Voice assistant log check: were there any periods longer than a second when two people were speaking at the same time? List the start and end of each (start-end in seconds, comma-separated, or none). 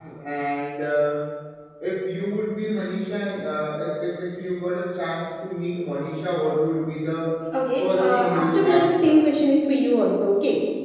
7.8-9.2